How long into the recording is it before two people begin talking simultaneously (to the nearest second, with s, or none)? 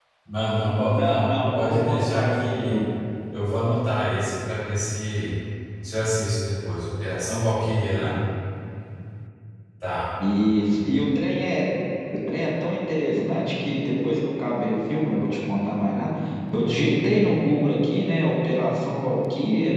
1 s